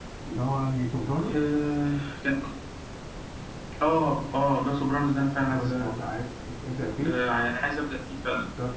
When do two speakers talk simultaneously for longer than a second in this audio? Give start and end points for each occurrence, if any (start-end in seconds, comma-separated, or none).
none